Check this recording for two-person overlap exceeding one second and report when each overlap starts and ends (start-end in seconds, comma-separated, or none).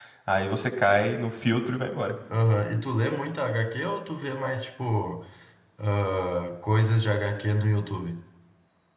none